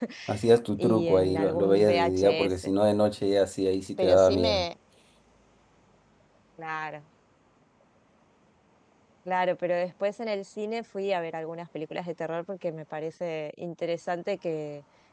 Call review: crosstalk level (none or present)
present